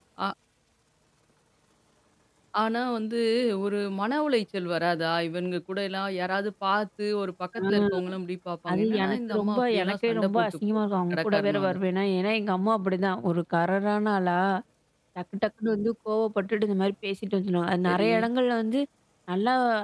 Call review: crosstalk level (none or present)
present